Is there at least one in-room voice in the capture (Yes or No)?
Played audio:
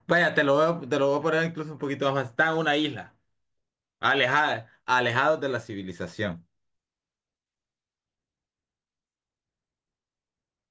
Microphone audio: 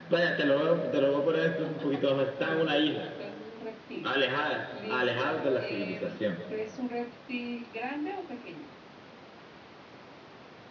Yes